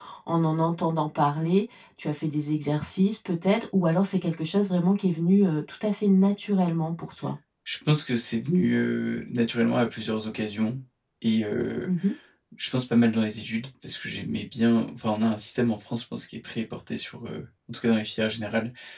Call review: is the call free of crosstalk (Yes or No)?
Yes